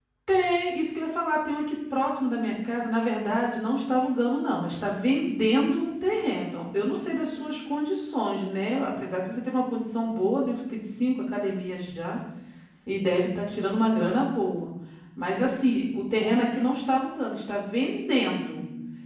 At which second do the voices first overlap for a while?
5.9 s

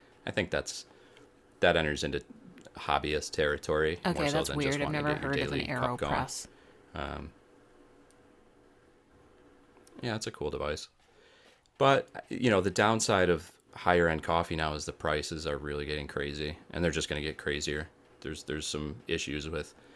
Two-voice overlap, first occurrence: 4.0 s

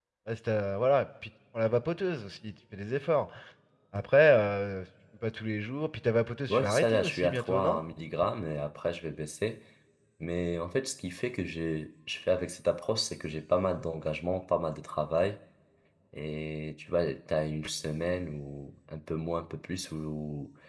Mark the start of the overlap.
6.5 s

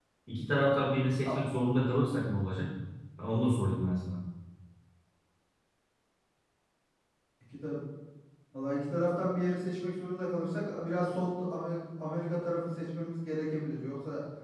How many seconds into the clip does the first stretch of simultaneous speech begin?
none

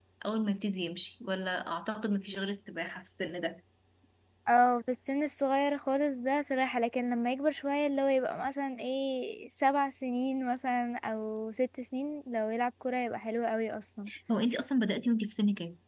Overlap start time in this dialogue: none

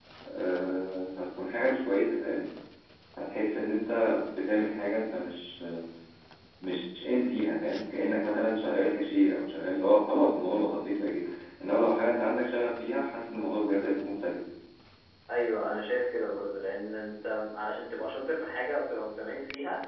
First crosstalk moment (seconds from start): none

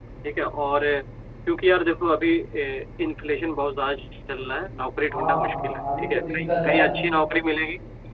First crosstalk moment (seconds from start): 5.1 s

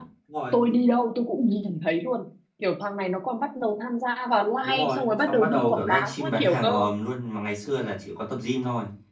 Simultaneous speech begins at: 4.6 s

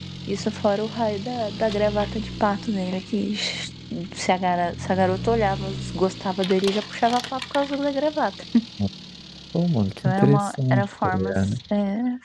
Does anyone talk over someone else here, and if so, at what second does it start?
10.0 s

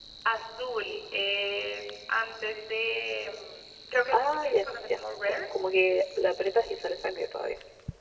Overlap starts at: 4.1 s

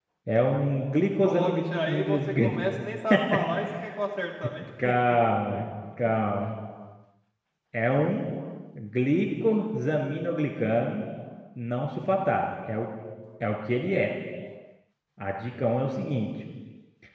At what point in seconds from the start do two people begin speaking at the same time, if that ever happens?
1.2 s

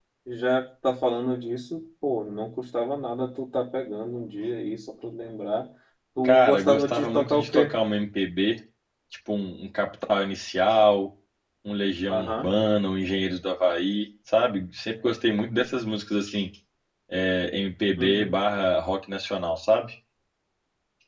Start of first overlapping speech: 6.2 s

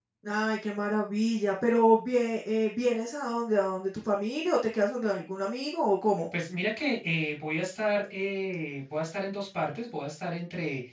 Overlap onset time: none

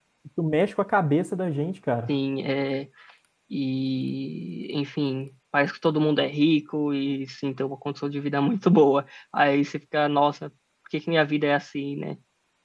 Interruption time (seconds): none

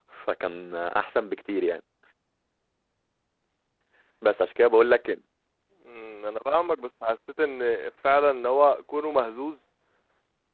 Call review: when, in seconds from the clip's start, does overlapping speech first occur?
none

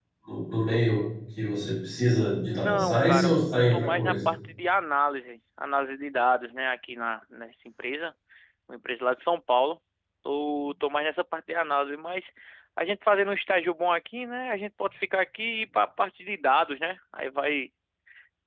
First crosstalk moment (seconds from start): 2.4 s

